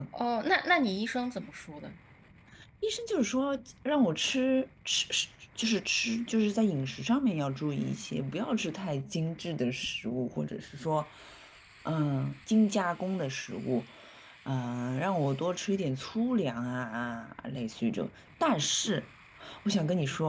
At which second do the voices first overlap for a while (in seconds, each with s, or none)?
none